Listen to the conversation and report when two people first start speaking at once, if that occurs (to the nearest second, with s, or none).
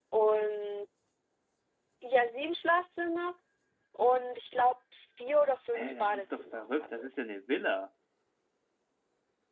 6 s